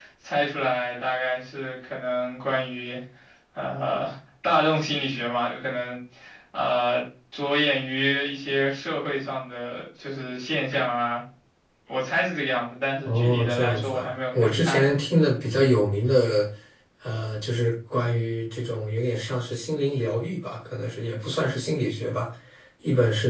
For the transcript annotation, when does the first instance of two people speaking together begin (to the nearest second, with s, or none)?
13 s